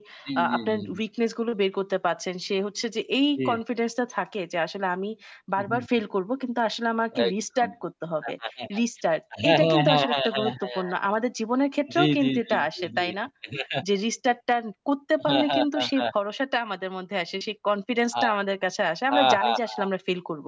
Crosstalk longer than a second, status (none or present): present